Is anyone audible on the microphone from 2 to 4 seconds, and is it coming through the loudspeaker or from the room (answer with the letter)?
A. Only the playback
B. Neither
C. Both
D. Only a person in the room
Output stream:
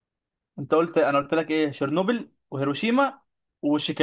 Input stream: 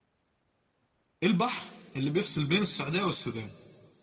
D